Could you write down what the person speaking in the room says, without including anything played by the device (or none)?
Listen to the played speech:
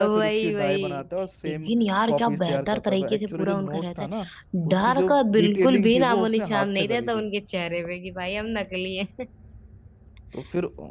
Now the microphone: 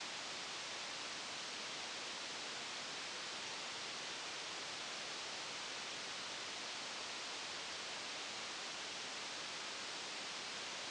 none